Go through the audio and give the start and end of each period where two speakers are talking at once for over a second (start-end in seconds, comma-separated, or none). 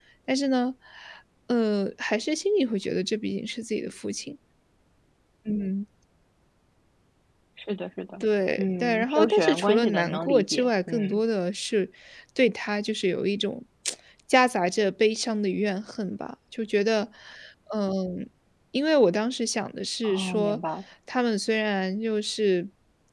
8.6-11.2